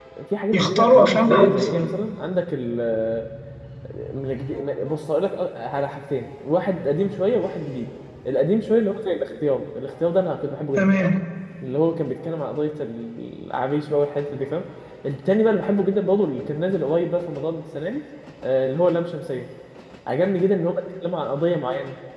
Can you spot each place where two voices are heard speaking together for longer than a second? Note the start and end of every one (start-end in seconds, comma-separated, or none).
0.5-1.9